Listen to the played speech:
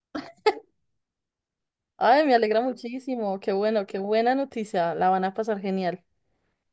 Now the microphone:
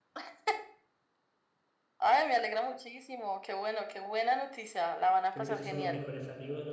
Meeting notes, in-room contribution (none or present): present